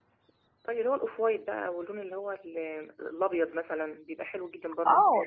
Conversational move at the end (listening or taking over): taking over